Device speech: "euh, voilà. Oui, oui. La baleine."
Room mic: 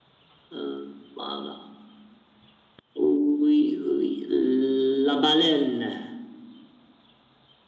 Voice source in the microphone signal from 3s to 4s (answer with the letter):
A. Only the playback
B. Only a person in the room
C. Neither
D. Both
A